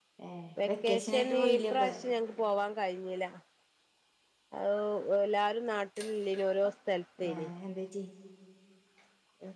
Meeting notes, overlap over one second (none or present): present